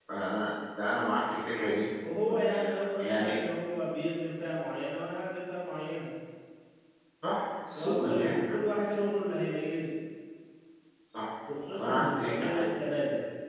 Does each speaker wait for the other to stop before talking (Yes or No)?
No